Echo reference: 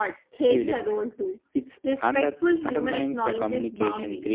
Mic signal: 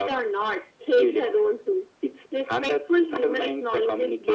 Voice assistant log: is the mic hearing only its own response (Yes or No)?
Yes